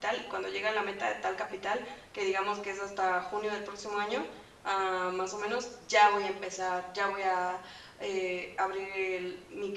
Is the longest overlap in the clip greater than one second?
No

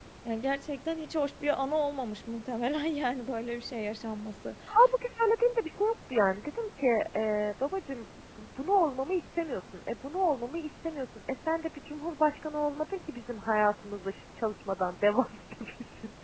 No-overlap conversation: Yes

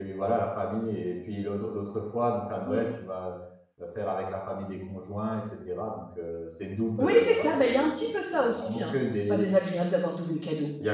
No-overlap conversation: No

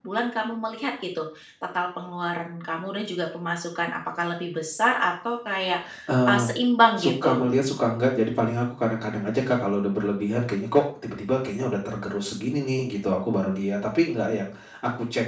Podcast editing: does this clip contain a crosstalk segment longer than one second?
No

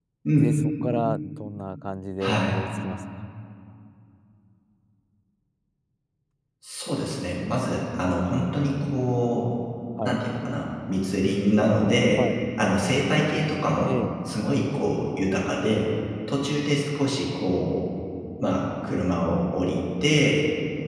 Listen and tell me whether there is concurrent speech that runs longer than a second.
No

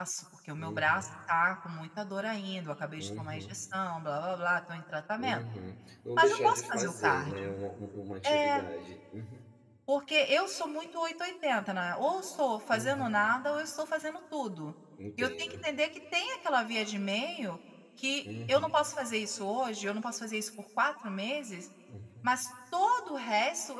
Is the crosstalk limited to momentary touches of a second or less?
No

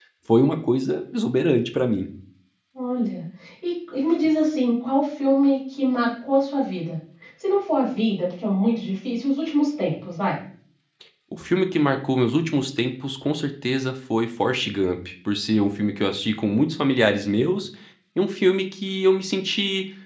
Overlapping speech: No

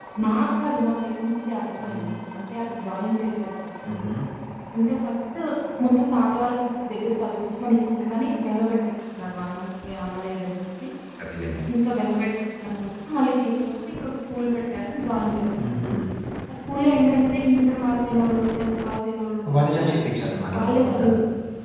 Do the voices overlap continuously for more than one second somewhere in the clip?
No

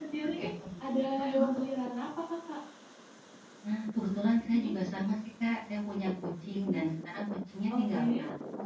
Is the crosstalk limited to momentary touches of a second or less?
Yes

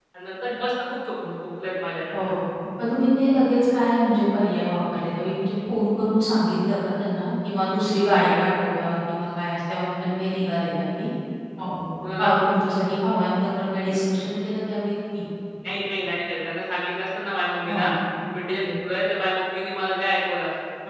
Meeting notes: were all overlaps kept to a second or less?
Yes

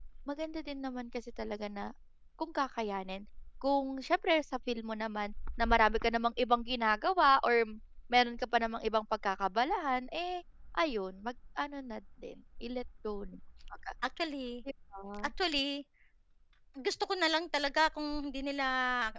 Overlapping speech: No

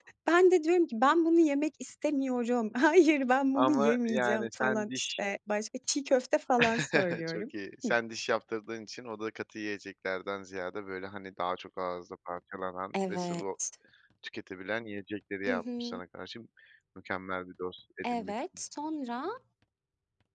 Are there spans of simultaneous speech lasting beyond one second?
Yes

